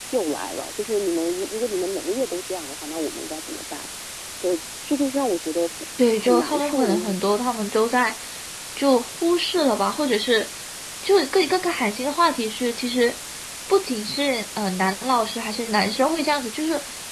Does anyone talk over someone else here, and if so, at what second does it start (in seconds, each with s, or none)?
6.2 s